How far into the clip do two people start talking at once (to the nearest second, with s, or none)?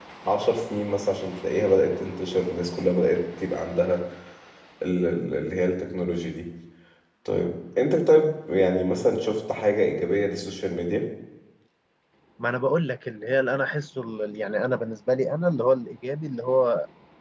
none